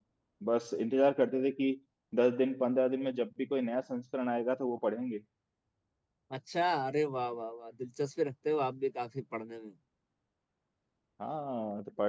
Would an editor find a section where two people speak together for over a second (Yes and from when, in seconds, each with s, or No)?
No